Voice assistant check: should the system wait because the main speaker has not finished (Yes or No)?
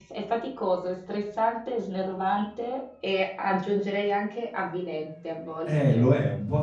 No